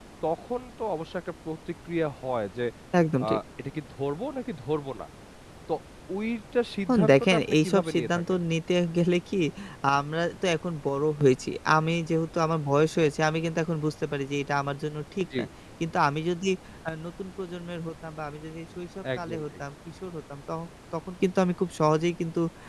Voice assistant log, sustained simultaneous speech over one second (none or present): present